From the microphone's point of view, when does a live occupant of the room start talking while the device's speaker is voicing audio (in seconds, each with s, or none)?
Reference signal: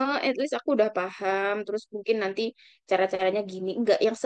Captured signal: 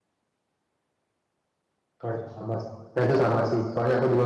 2.0 s